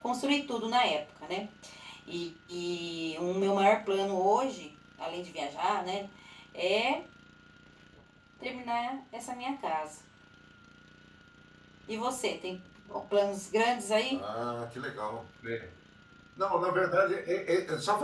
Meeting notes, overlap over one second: none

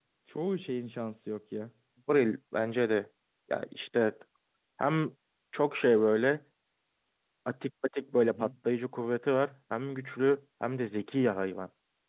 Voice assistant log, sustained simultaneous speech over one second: none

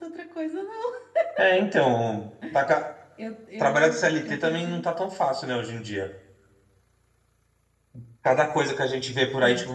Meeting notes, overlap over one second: present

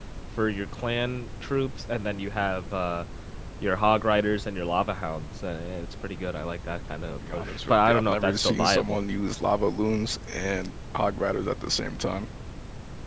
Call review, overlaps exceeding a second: present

